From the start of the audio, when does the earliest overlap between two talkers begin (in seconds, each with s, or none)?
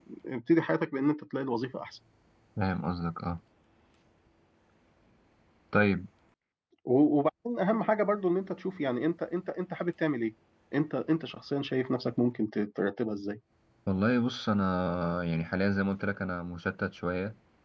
none